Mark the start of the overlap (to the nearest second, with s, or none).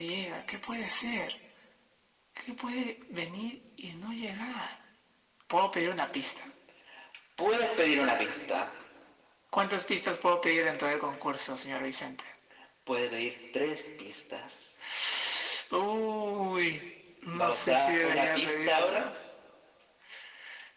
17 s